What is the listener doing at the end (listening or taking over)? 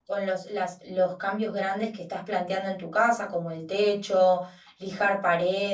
listening